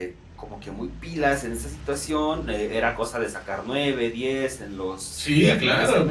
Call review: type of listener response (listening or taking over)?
taking over